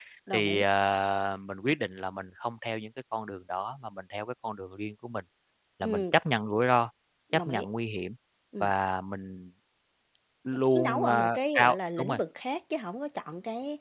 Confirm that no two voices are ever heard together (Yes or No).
No